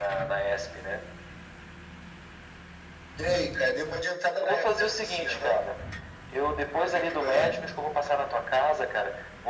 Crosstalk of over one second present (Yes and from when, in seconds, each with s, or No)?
Yes, from 4.4 s